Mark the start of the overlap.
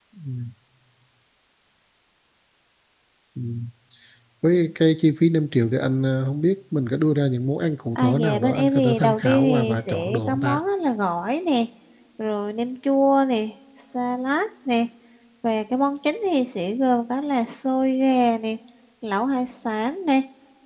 8.0 s

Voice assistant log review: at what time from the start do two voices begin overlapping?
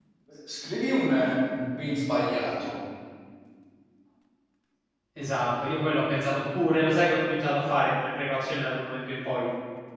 none

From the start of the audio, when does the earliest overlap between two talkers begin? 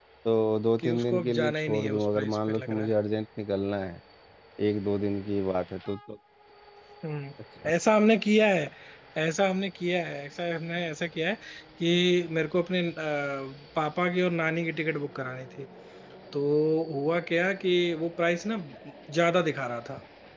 0.8 s

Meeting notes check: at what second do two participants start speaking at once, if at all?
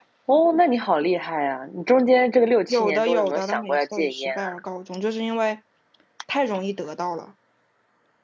2.7 s

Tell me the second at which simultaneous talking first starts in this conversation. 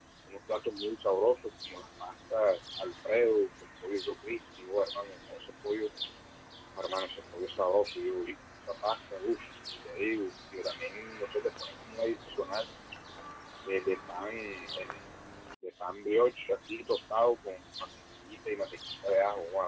none

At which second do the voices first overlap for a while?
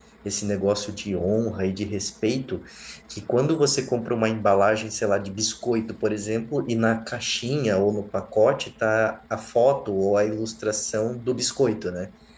none

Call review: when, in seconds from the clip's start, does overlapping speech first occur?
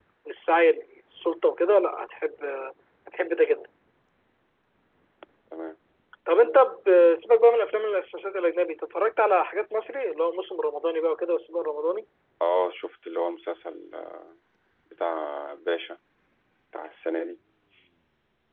none

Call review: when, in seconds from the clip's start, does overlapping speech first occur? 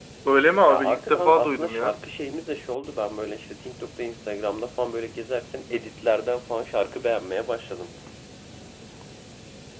0.7 s

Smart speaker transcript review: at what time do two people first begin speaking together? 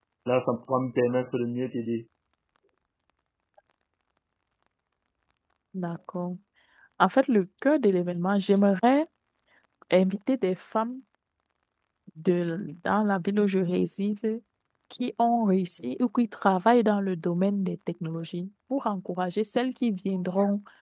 none

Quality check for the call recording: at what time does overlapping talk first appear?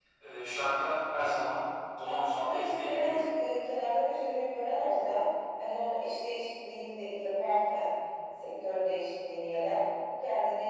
2.0 s

